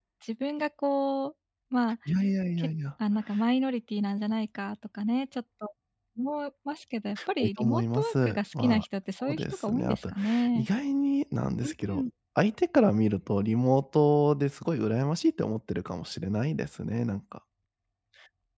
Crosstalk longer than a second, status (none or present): present